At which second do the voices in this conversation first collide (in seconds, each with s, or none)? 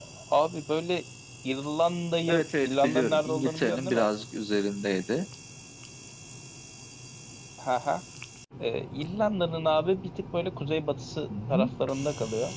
2.3 s